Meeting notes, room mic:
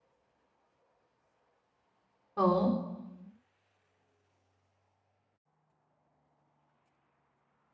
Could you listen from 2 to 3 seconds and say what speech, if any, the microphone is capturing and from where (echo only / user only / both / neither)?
user only